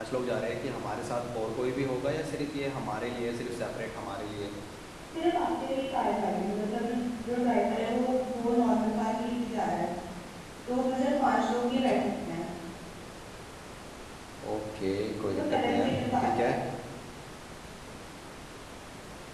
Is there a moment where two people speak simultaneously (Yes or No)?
Yes